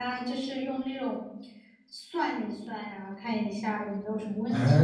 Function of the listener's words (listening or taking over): taking over